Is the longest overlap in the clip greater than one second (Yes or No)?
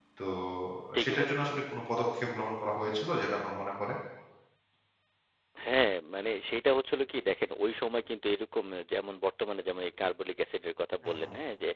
No